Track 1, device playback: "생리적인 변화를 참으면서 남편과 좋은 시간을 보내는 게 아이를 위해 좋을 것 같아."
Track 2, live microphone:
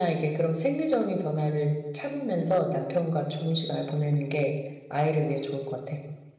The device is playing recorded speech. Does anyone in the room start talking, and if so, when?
none

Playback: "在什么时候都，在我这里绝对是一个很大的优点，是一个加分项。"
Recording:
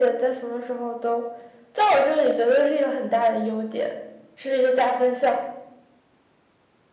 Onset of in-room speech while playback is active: none

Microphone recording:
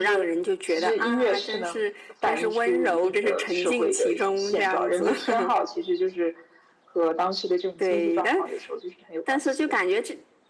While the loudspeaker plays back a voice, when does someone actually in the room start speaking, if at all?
none

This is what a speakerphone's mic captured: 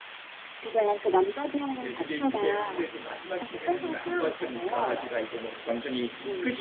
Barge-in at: 1.8 s

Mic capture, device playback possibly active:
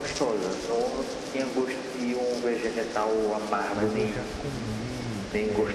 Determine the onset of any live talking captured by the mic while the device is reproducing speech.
3.7 s

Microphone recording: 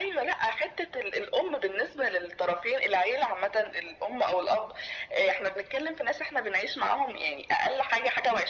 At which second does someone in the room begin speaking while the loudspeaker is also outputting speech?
none

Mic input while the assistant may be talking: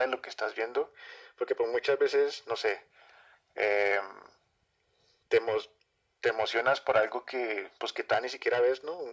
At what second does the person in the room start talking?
none

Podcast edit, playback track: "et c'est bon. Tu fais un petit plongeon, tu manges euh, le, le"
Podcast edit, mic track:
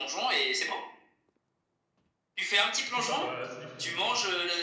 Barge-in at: 2.9 s

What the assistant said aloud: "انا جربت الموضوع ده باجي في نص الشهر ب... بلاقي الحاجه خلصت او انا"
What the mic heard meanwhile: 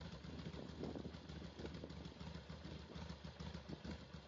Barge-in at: none

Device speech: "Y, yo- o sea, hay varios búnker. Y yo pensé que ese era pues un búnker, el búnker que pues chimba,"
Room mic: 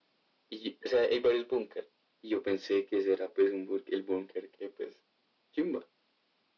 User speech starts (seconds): none

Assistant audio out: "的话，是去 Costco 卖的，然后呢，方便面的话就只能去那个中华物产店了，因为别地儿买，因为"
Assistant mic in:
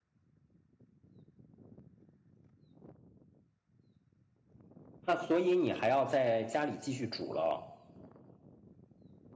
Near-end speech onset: 5.0 s

